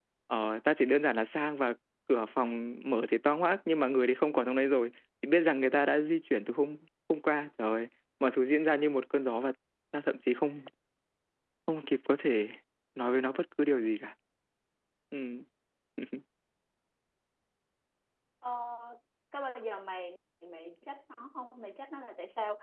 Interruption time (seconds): none

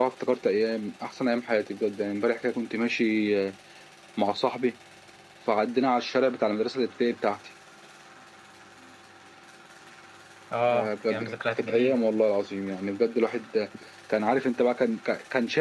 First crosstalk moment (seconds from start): 10.7 s

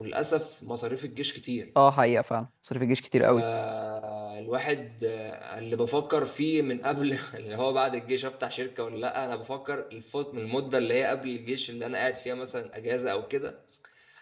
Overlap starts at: none

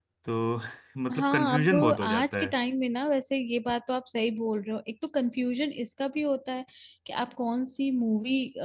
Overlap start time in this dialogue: 1.2 s

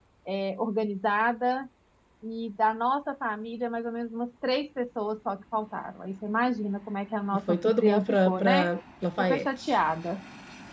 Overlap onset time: 7.3 s

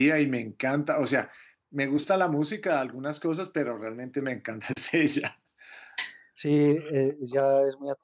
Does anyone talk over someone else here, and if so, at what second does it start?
none

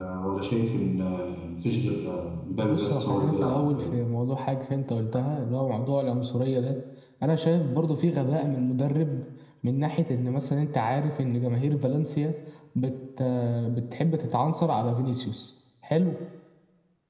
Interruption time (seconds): 2.6 s

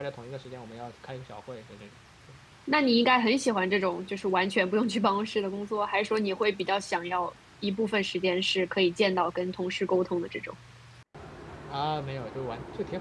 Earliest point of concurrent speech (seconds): none

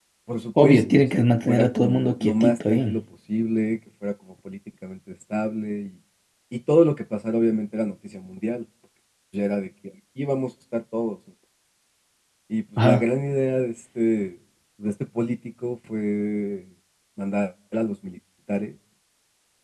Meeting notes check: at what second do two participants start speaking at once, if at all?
0.6 s

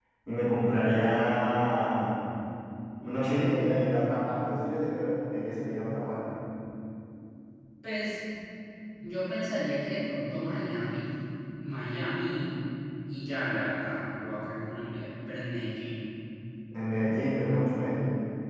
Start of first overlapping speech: none

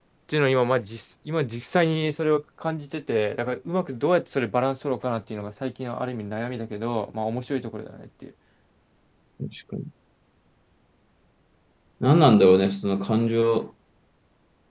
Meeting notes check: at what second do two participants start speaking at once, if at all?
none

